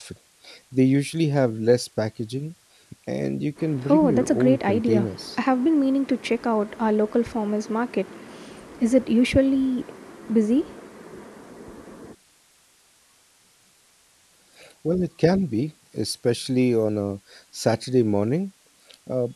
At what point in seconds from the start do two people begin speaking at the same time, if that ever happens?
3.9 s

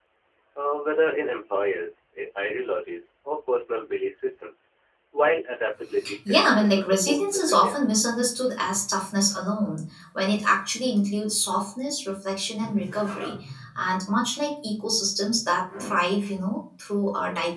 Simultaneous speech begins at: 6.0 s

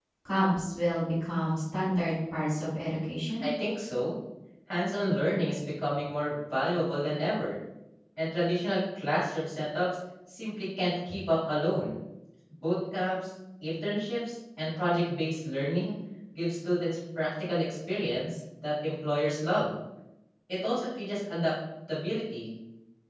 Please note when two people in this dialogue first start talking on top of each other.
none

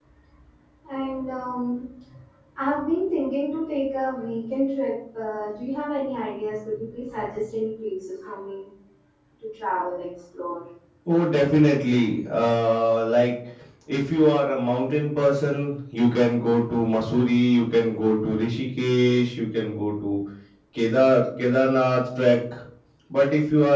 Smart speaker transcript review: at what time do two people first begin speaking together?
none

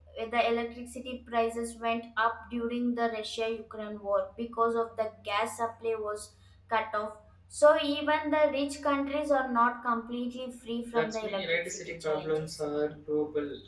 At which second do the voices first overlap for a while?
10.9 s

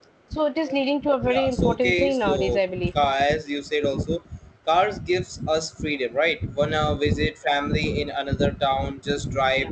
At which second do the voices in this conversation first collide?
1.3 s

